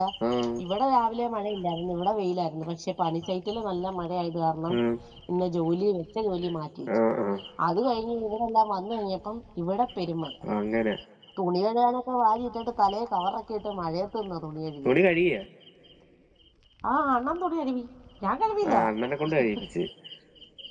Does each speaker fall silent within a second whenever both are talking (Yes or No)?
Yes